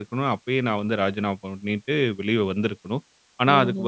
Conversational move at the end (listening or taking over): listening